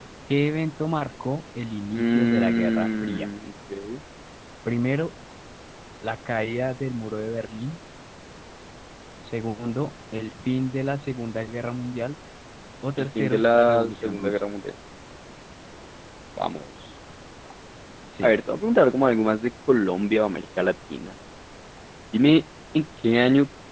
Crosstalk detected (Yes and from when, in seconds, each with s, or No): Yes, from 1.9 s